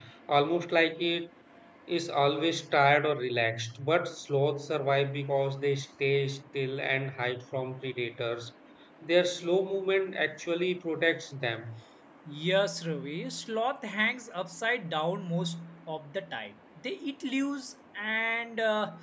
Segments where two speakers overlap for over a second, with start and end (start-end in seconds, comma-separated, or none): none